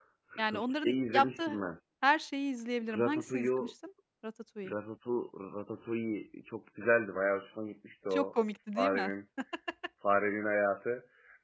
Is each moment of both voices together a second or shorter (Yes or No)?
No